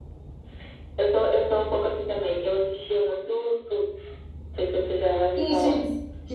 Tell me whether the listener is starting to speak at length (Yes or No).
Yes